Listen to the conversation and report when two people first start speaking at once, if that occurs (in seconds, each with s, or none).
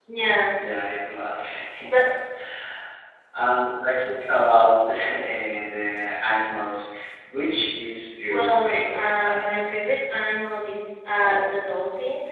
8.3 s